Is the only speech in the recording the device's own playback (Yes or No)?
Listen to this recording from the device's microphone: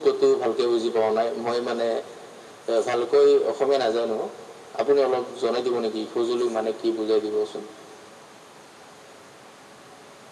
Yes